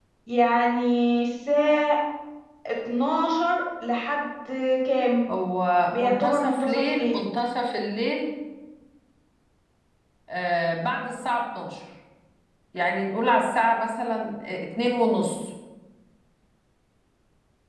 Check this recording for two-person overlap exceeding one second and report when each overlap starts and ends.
5.9-7.2

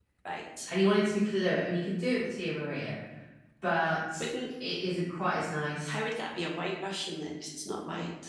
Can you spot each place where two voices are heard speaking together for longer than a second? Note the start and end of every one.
none

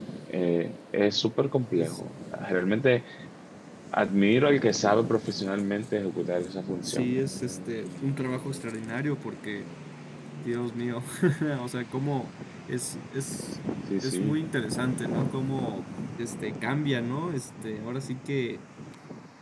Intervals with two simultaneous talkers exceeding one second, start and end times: none

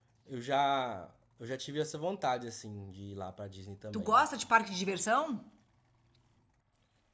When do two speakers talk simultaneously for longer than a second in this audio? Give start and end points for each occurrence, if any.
none

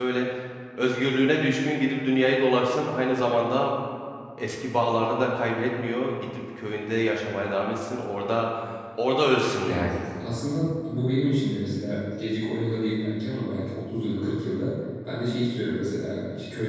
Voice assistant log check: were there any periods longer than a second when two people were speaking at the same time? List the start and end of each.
none

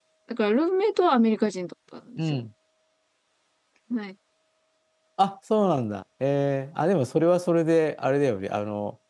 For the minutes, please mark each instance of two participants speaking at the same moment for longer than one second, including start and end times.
none

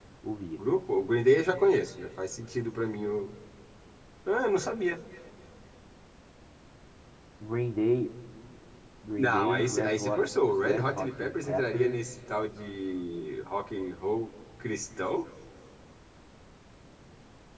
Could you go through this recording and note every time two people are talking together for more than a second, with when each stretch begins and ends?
9.2-12.0

